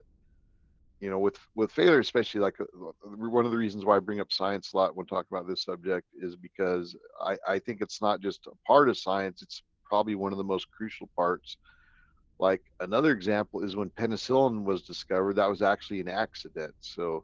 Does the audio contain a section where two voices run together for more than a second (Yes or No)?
No